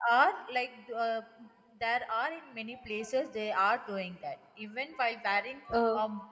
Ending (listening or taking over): listening